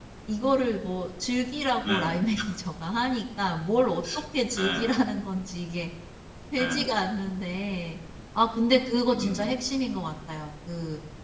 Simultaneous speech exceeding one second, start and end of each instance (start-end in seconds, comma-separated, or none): none